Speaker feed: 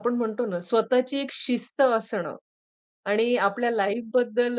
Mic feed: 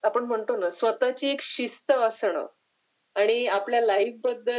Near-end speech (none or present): none